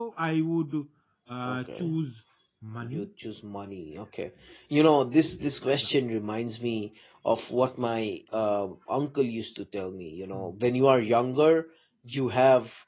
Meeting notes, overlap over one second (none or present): none